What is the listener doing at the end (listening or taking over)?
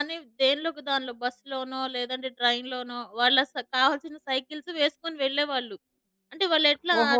taking over